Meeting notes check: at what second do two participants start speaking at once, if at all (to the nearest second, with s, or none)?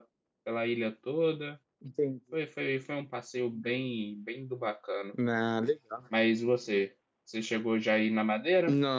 none